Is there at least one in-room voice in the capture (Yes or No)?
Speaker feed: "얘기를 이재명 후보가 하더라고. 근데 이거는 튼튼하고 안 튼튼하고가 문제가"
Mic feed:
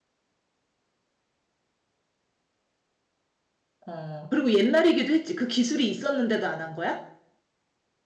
Yes